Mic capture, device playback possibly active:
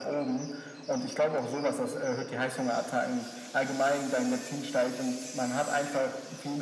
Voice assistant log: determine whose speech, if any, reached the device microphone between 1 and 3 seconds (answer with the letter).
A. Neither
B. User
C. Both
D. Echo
D